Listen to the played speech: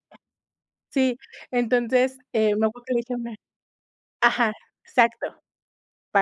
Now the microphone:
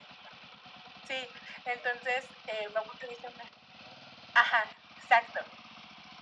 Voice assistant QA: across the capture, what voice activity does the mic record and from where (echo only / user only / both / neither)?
echo only